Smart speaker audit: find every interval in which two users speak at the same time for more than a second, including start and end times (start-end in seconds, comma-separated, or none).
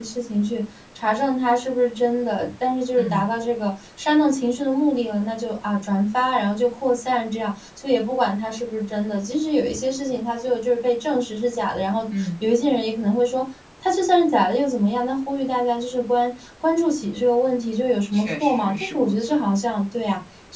18.1-19.4